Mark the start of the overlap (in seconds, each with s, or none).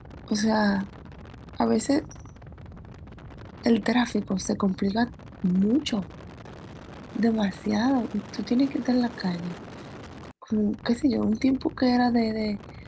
none